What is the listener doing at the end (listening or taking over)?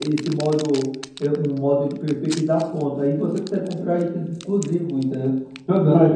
taking over